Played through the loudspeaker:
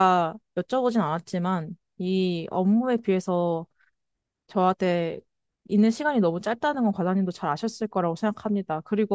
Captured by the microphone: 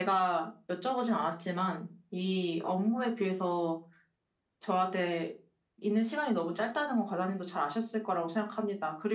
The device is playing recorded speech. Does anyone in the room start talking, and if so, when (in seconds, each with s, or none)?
none